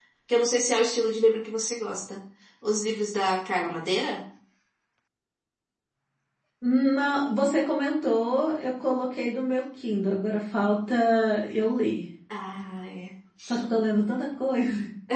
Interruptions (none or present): none